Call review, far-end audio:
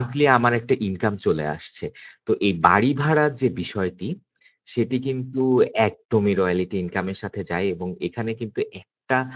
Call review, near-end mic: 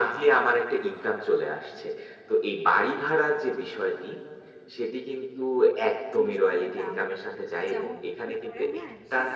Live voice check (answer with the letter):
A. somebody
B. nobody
A